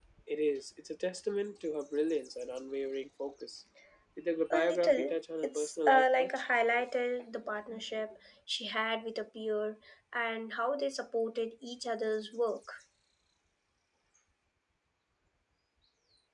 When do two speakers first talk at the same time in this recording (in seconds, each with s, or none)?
4.5 s